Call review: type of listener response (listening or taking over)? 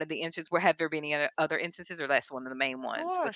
taking over